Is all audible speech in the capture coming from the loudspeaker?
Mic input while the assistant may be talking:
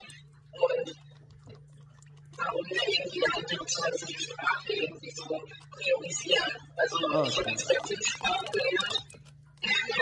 No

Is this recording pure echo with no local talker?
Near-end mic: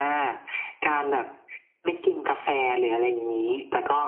Yes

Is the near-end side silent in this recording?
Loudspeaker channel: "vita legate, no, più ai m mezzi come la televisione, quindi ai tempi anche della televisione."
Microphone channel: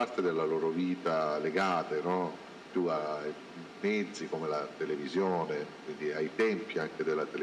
Yes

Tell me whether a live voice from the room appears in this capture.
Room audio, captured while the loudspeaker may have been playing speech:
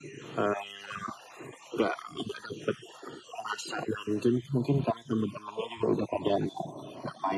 No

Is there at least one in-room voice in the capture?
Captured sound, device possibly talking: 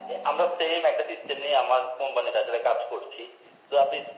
No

